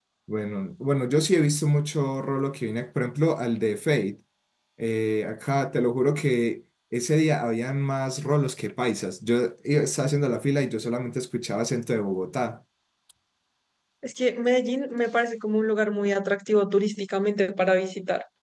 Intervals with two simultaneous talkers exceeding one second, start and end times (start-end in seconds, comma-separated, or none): none